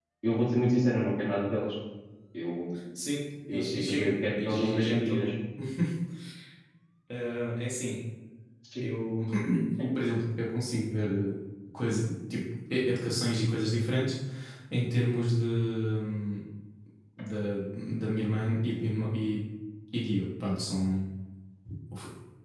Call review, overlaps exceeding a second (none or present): present